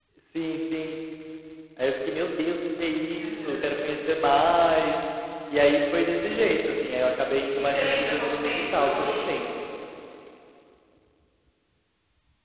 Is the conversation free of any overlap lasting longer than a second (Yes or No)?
No